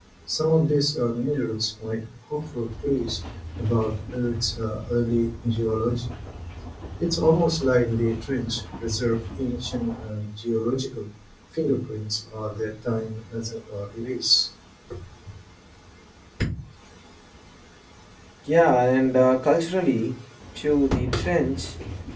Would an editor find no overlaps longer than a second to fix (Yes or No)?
Yes